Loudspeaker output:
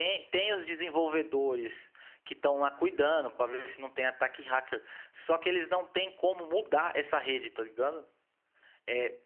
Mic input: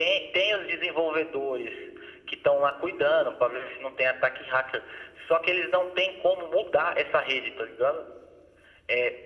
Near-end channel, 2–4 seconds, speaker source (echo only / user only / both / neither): echo only